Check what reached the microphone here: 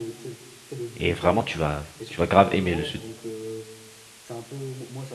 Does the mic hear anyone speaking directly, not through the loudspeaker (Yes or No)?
Yes